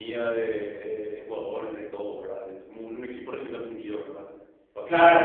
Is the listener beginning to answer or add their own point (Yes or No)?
Yes